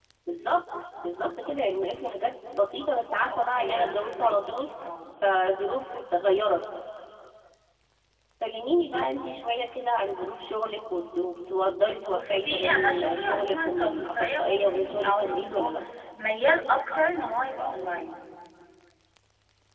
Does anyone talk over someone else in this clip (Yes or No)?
Yes